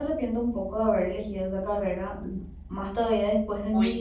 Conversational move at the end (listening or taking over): listening